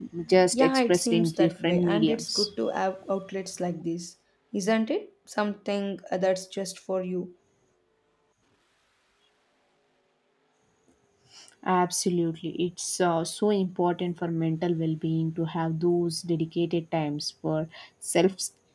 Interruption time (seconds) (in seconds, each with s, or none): 0.5 s